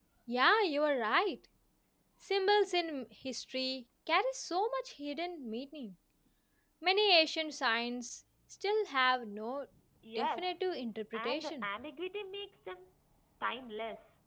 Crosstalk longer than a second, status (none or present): none